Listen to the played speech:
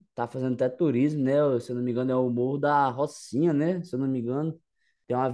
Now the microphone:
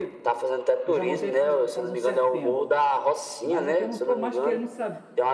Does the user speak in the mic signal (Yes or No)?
Yes